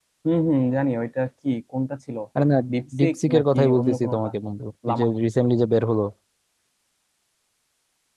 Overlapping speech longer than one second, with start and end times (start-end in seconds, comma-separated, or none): 3.0-4.3